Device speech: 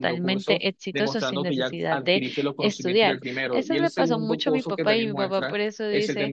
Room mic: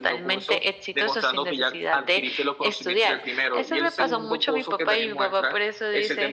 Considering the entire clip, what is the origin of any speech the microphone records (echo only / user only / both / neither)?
echo only